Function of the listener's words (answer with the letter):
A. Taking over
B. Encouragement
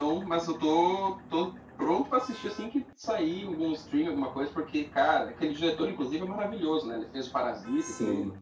A